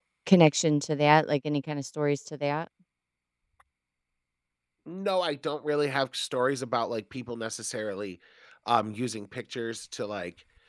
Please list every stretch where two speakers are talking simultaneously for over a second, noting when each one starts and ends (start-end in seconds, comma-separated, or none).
none